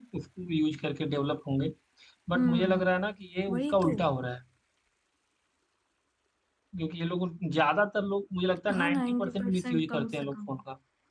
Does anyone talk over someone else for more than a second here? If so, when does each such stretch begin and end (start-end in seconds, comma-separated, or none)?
8.8-10.3